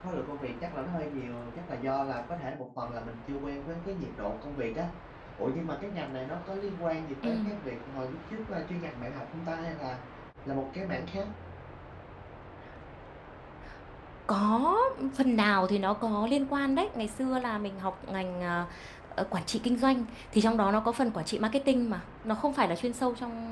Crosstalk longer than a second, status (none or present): none